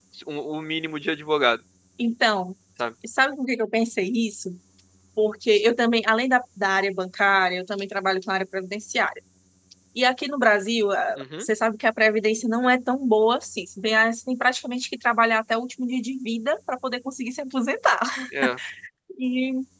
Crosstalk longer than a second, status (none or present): none